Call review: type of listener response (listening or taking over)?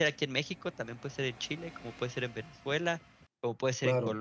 listening